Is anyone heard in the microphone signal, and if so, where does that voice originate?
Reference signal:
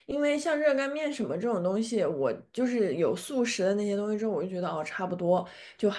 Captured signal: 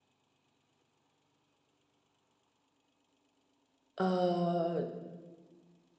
user only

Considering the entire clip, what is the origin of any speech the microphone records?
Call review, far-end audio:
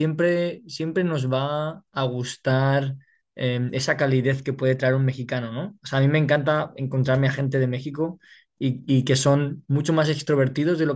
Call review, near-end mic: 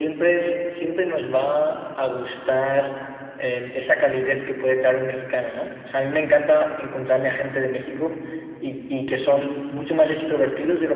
echo only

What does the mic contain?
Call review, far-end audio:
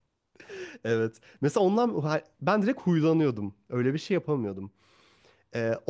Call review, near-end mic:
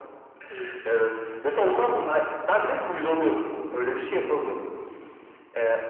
echo only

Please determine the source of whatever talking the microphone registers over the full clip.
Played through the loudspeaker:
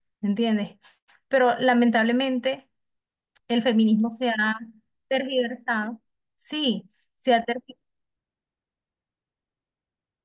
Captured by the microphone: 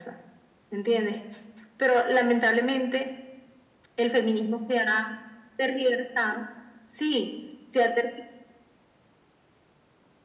echo only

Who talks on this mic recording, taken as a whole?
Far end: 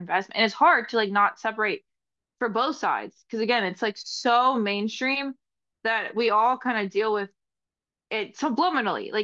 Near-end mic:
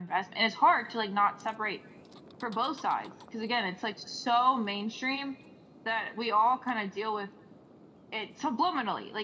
echo only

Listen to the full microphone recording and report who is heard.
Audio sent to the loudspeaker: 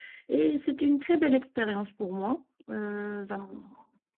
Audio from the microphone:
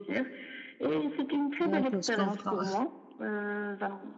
both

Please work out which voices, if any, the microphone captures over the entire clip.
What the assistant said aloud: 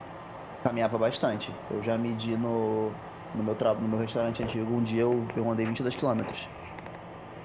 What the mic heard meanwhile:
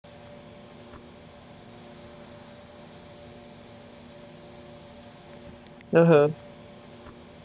user only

